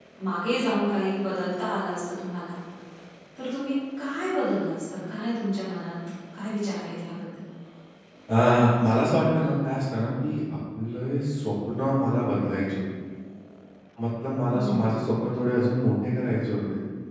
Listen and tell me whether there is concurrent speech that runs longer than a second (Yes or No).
No